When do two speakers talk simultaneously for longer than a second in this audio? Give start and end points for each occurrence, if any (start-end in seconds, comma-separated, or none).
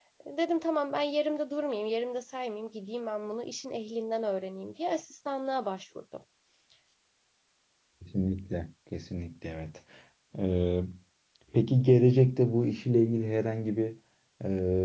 none